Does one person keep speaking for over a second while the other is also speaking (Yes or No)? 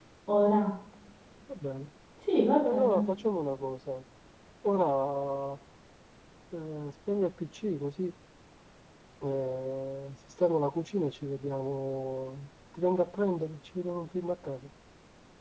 No